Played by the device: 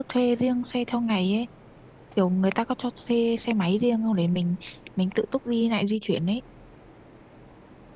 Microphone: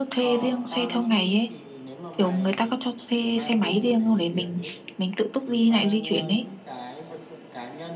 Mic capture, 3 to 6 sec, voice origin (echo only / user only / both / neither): both